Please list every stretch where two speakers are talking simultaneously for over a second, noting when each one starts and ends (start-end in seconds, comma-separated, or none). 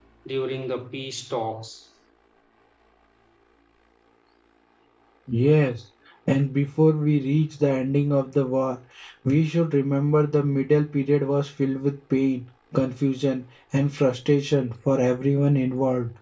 none